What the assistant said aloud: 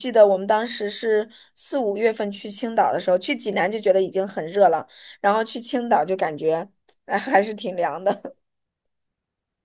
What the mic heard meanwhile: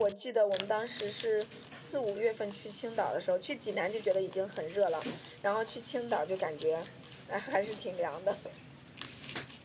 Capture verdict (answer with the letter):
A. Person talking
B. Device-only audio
B